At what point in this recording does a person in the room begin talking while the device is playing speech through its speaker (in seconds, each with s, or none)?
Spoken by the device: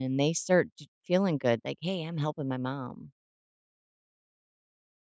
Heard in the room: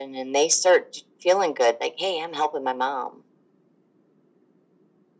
none